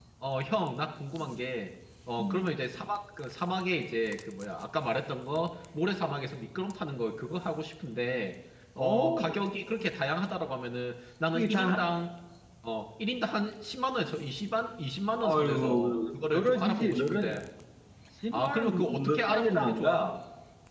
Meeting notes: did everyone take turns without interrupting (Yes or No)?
No